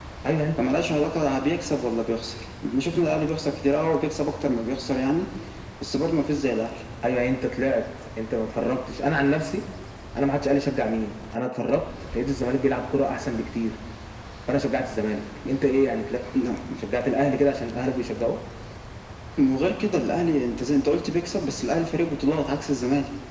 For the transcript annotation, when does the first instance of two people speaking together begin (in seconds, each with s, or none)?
none